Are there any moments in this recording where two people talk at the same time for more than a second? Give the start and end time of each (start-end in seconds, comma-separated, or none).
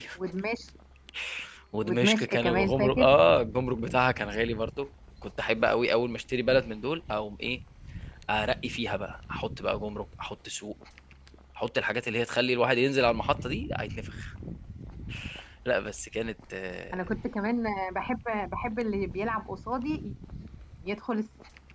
1.8-3.0